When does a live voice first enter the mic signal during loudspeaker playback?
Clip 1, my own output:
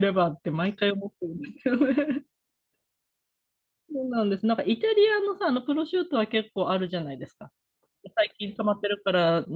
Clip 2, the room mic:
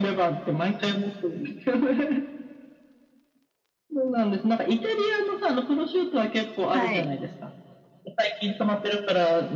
6.7 s

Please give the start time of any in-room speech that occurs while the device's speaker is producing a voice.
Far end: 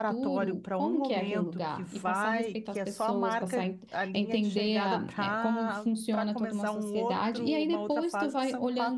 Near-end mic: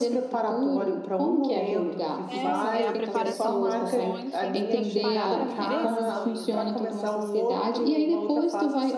2.3 s

